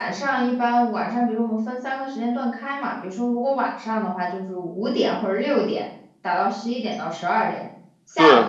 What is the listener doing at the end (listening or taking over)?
listening